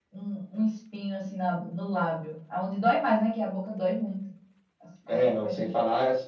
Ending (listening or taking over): taking over